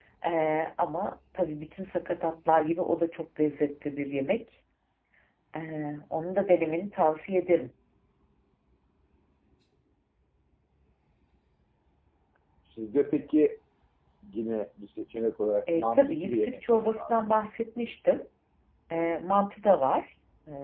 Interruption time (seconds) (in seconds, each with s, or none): 15.7 s